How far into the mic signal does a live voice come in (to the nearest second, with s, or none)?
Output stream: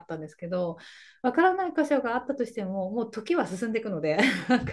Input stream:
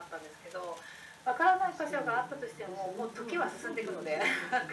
2 s